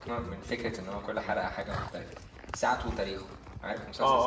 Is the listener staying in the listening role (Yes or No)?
No